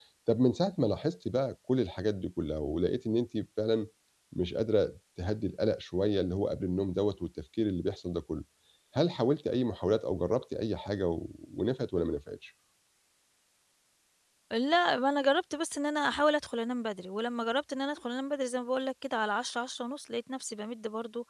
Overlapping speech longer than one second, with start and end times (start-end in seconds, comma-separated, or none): none